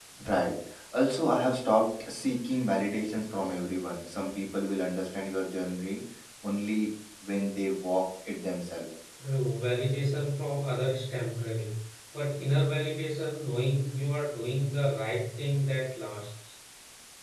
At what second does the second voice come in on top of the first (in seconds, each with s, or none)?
none